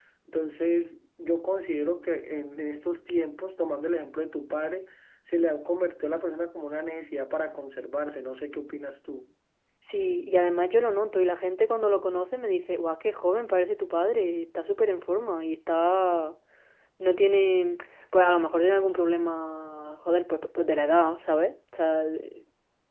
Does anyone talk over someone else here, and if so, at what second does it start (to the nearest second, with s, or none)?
none